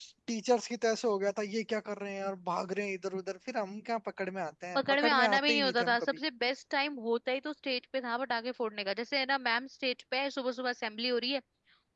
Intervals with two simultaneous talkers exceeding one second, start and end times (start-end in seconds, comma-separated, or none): 4.8-6.0